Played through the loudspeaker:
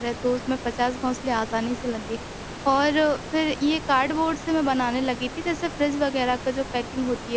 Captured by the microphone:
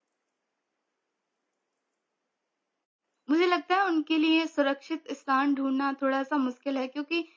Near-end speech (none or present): present